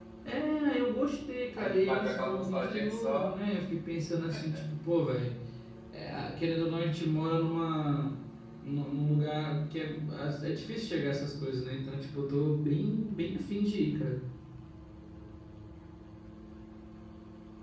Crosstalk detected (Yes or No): Yes